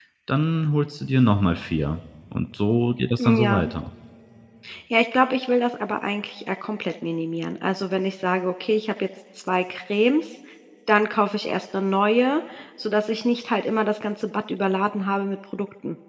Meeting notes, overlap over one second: none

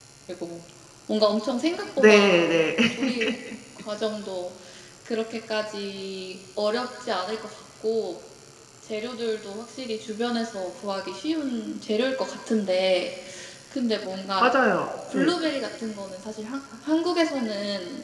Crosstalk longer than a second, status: none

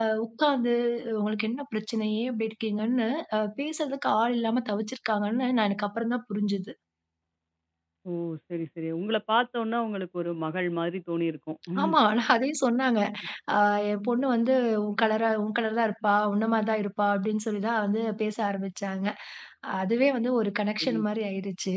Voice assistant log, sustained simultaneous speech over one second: none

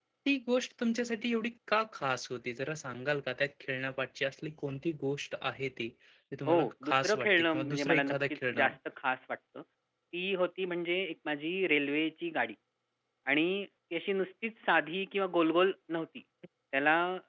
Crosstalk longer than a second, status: present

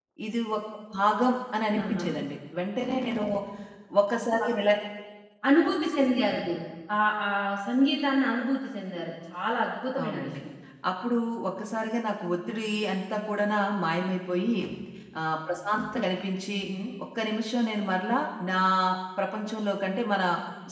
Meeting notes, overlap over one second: none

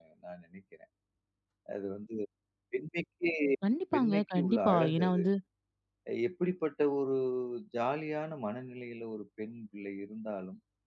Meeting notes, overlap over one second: present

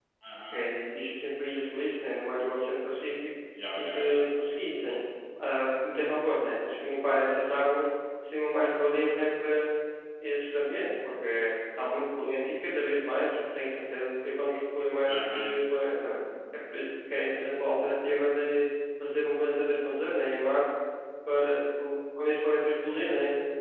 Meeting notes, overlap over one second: none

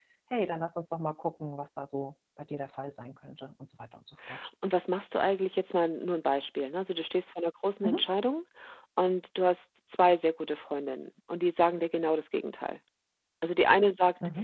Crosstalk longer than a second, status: none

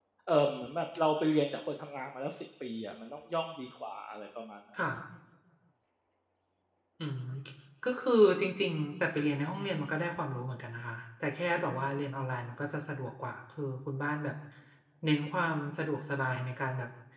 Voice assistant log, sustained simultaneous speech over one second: none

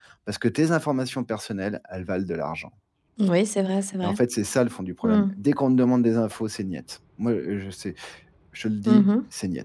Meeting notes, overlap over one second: none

